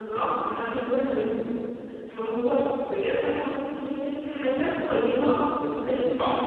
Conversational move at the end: listening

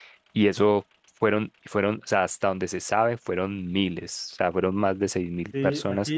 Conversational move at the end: taking over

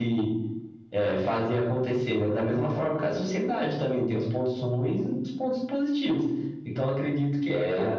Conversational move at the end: listening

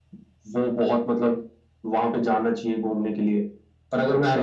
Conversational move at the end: listening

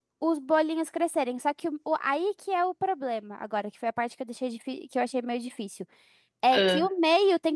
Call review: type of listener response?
listening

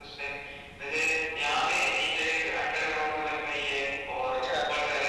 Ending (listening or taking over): listening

